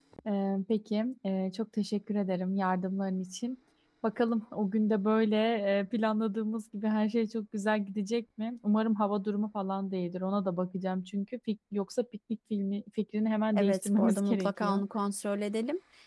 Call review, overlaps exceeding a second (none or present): present